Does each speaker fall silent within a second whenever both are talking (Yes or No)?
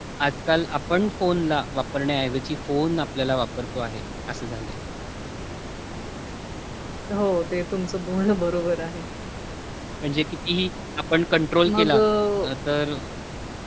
Yes